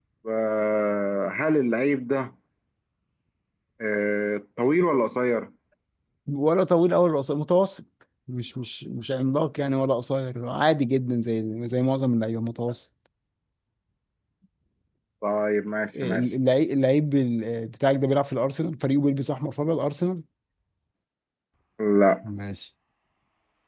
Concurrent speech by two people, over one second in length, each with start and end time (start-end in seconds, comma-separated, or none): none